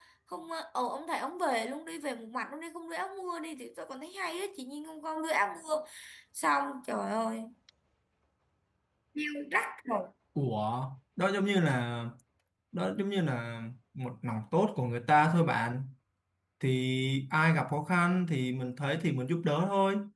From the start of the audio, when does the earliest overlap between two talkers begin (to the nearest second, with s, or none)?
none